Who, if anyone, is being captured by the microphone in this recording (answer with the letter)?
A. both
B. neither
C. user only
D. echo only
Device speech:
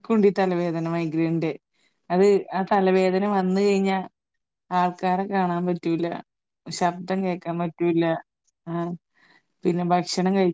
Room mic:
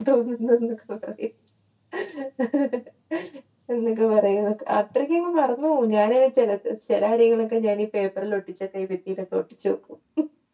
C